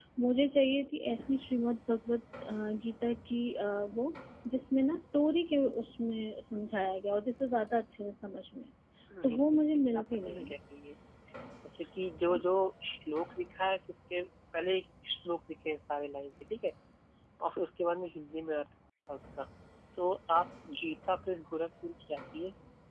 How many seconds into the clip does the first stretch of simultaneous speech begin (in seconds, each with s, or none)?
9.2 s